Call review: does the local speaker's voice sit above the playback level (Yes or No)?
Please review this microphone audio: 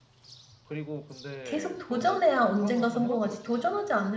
Yes